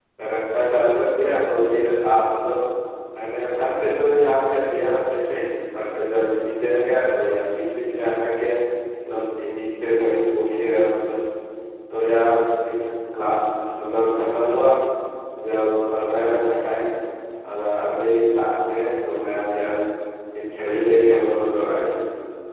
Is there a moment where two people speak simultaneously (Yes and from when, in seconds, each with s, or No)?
No